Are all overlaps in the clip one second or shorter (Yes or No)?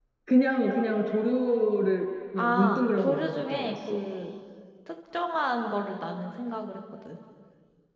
No